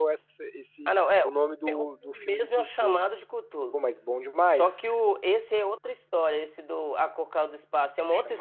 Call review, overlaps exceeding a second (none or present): present